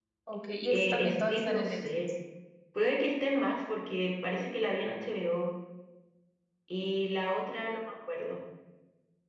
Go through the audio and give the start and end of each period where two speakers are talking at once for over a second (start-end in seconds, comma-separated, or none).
0.7-2.1